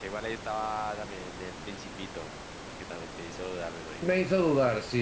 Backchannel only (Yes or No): No